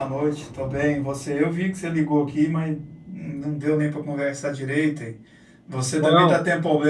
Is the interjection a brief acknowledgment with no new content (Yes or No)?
Yes